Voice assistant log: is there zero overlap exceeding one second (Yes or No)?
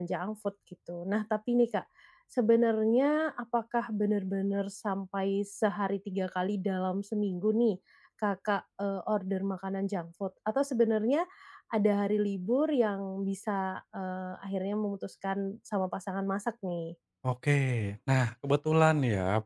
Yes